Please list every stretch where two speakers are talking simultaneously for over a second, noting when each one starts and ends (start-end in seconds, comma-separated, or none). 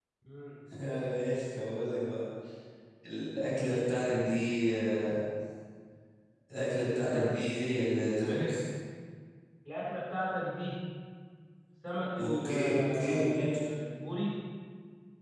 12.2-13.6